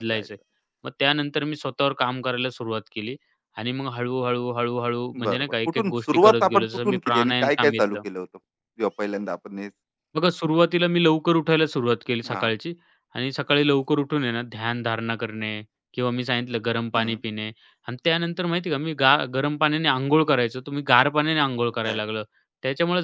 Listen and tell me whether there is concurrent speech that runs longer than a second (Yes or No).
Yes